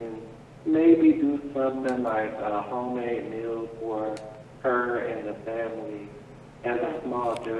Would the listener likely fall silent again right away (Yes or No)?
Yes